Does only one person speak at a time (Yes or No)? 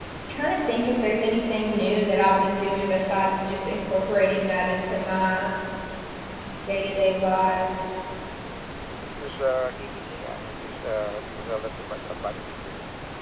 Yes